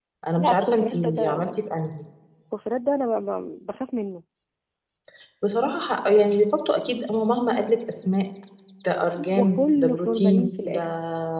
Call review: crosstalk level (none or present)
present